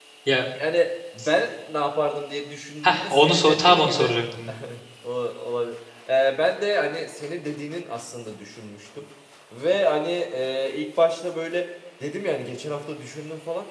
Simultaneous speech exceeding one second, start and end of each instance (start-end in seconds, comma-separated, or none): 2.9-4.1